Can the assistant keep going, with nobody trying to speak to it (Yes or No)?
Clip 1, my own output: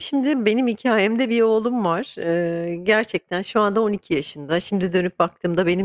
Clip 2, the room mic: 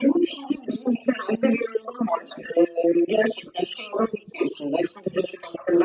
Yes